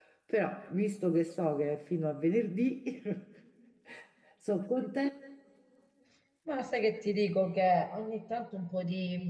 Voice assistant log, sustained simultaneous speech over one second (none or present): none